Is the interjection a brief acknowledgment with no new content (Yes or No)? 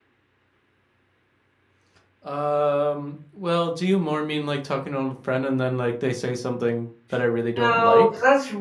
No